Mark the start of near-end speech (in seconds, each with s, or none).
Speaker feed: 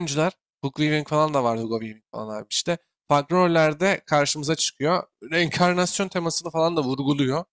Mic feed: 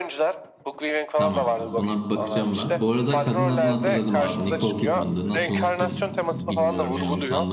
1.1 s